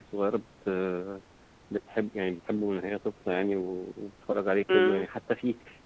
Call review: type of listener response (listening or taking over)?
listening